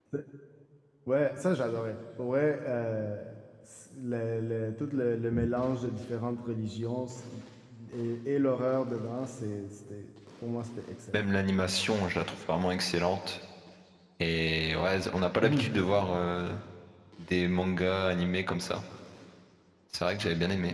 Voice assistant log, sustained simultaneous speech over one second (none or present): none